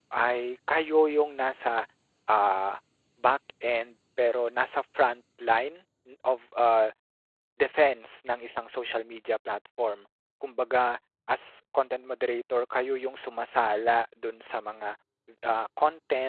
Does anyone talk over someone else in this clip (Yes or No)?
No